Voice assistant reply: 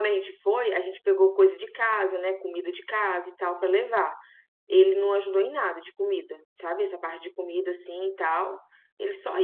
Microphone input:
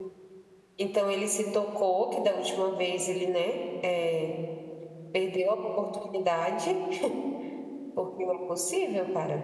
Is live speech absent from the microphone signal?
No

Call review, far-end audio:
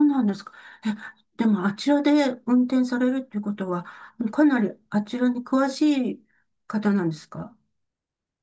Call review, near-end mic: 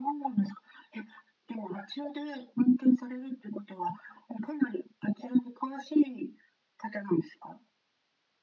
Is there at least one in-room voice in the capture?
No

